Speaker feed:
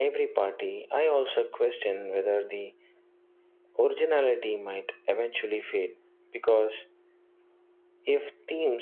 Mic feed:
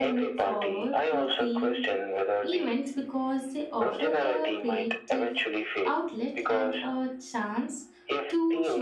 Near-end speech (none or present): present